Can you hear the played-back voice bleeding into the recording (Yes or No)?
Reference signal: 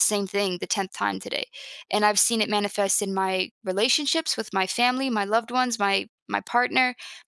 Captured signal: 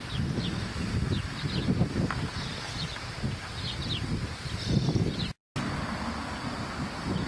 No